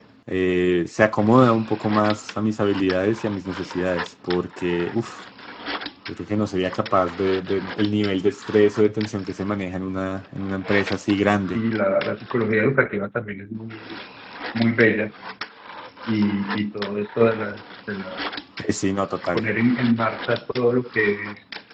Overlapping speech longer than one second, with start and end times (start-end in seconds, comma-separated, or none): none